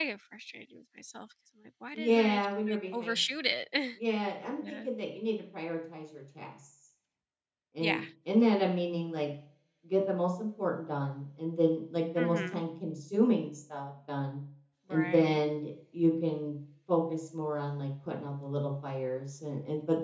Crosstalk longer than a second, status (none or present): present